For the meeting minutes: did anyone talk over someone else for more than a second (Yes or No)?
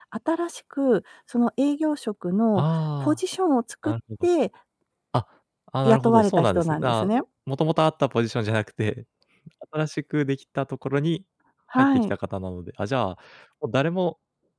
Yes